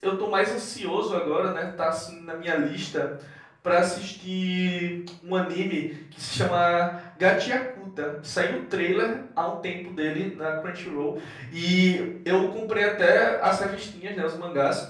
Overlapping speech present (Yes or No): No